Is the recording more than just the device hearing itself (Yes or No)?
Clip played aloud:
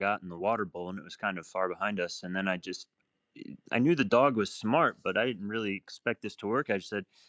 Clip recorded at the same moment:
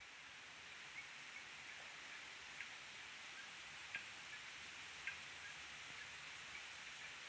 No